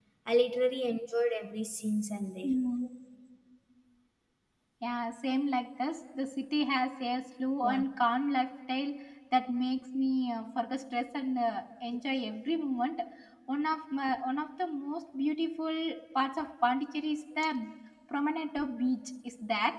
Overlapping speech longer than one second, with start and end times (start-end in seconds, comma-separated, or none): none